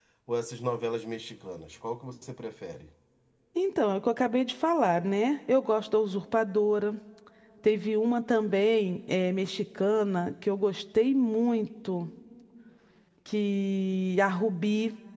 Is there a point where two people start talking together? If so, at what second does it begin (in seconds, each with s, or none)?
none